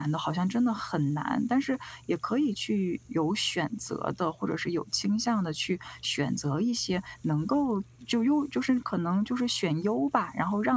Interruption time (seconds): none

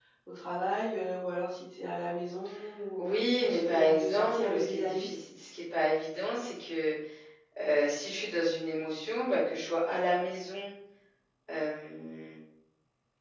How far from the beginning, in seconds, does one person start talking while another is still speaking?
3.4 s

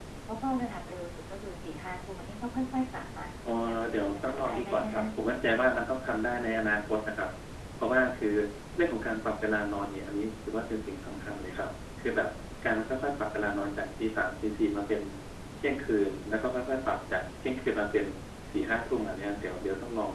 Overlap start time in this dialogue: 3.7 s

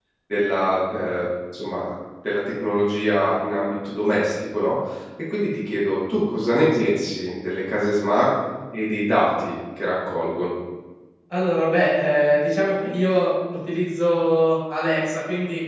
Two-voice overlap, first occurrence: none

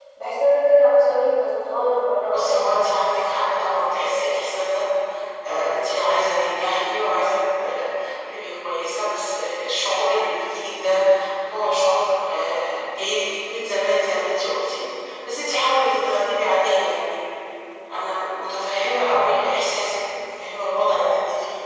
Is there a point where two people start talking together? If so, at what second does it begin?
2.3 s

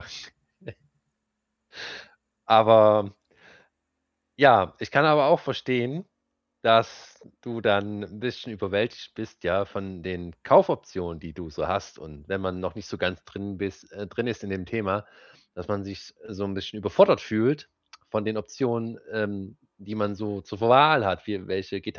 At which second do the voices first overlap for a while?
none

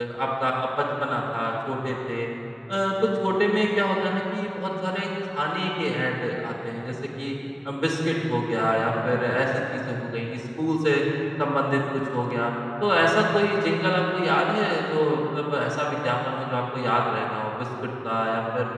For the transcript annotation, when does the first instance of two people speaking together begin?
none

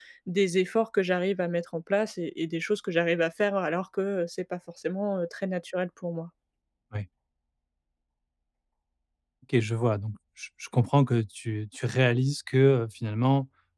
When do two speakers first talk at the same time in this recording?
none

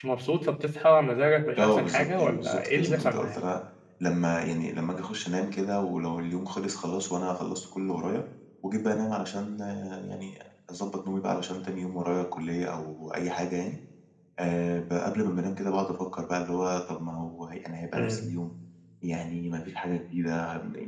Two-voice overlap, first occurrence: 1.6 s

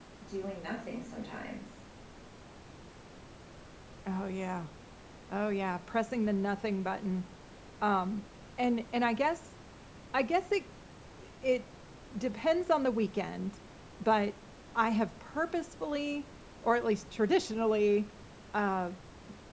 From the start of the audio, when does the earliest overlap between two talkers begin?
none

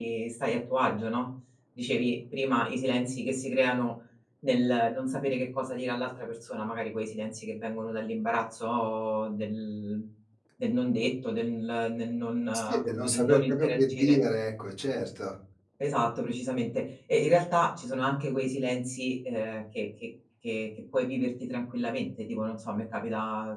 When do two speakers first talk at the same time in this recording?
12.5 s

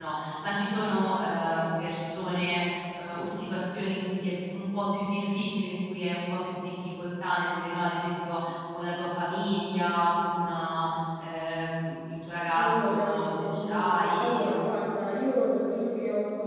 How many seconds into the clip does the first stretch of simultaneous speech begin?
12.5 s

